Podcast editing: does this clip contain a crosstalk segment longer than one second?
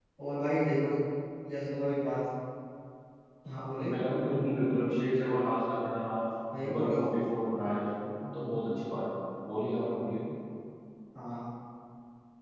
No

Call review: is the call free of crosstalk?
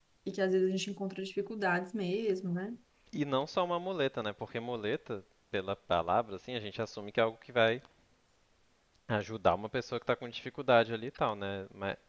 Yes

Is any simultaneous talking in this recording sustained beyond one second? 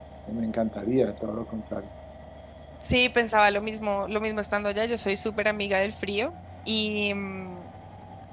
No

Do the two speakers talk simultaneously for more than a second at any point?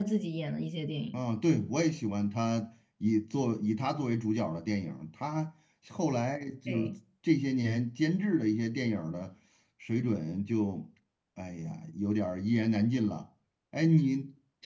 No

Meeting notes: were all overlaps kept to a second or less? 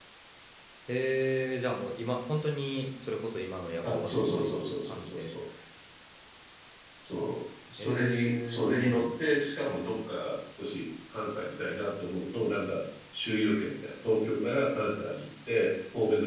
No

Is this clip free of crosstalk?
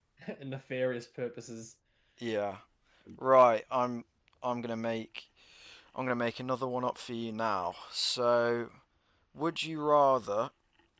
Yes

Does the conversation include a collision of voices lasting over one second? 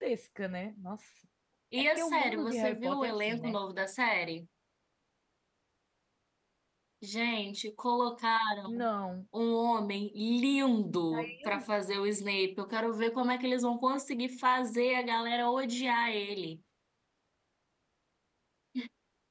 Yes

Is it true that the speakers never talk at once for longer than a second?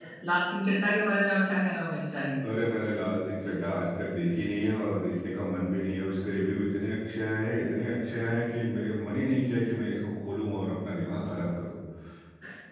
Yes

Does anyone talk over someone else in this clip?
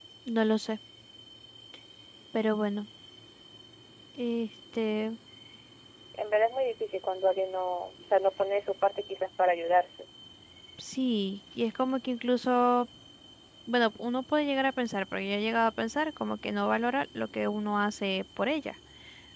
No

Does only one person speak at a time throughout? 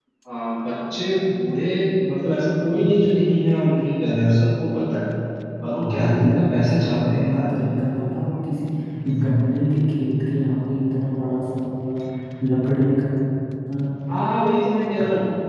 No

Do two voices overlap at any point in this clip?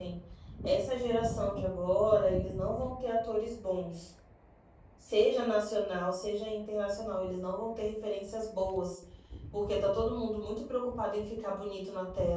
No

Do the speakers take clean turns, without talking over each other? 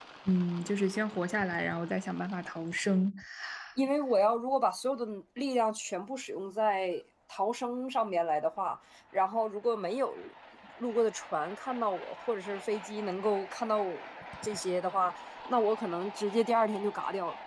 Yes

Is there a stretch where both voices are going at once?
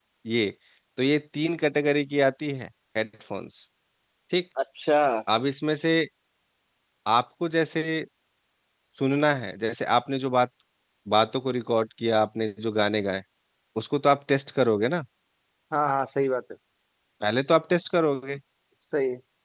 No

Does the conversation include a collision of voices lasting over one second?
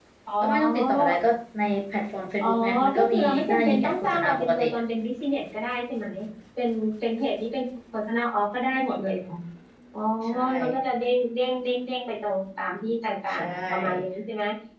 Yes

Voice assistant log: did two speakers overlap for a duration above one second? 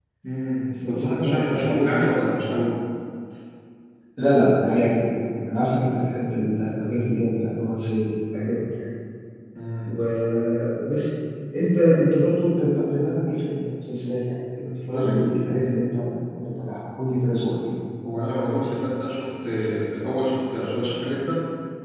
Yes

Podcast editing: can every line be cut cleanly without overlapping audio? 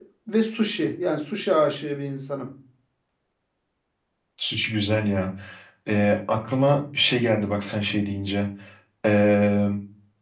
Yes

